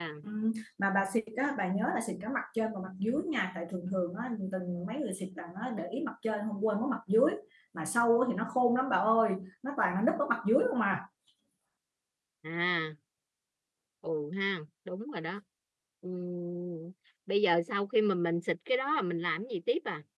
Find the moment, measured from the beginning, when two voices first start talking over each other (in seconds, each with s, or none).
none